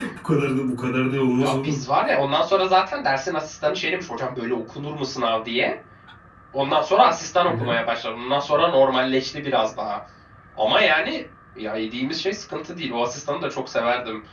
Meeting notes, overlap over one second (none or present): none